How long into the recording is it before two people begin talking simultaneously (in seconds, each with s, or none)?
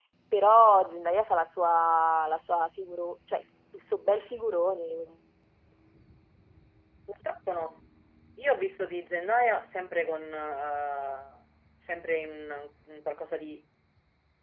none